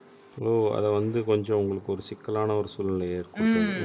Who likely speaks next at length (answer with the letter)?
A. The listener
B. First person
A